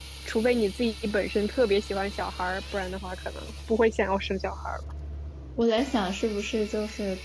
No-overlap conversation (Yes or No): Yes